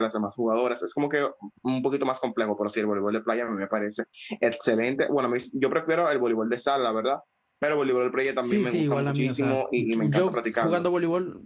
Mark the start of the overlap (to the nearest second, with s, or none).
8 s